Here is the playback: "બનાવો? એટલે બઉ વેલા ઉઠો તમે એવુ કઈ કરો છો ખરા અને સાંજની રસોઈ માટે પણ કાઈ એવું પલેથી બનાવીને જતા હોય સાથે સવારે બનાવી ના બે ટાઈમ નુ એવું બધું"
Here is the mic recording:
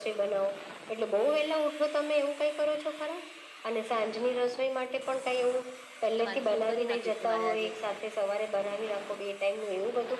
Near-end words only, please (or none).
કે મારે શું કરી નાખીશ કે મારે આજે